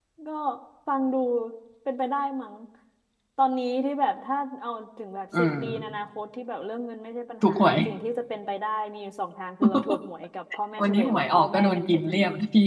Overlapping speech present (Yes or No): Yes